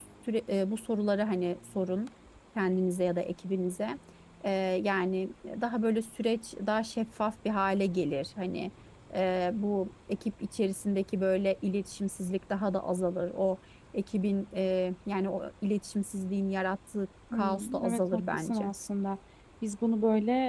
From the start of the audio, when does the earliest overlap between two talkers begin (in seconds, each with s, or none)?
17.3 s